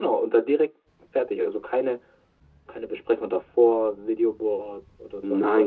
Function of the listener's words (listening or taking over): taking over